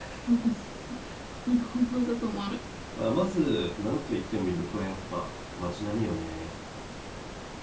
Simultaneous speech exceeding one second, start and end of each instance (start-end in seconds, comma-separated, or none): none